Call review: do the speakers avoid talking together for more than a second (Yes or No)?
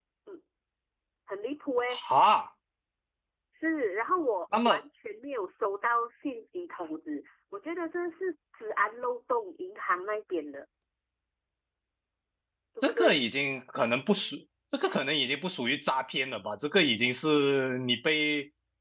Yes